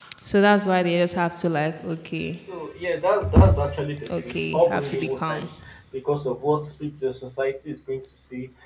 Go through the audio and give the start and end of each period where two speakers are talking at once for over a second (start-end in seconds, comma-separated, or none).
4.1-5.5